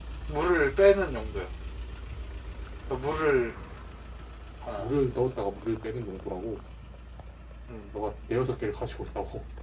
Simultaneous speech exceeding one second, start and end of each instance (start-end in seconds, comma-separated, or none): none